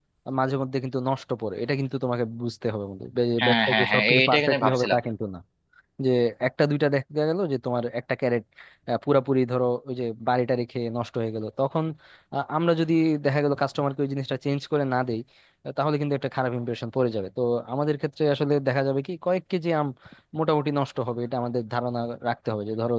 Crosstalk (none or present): present